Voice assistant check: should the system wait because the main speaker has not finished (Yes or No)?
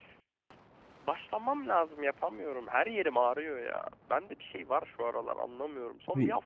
Yes